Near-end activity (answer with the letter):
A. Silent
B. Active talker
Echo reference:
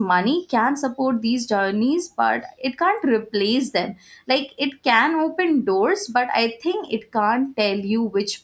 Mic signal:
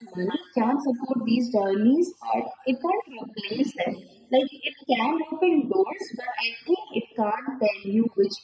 A